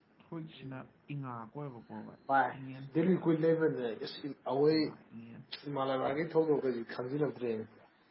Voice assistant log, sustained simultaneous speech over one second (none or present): none